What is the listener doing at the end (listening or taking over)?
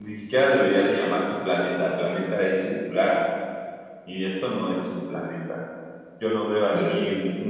listening